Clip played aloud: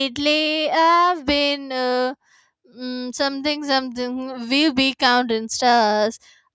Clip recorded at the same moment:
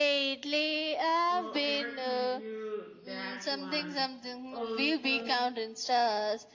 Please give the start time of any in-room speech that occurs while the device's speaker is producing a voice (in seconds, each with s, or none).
1.3 s